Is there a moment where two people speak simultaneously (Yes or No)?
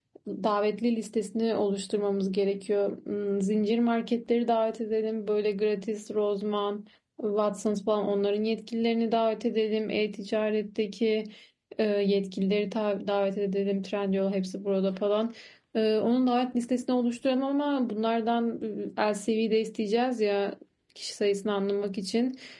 No